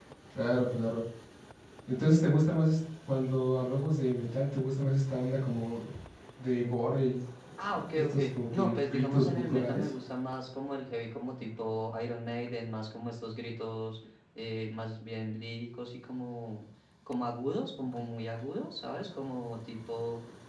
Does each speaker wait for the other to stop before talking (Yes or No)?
No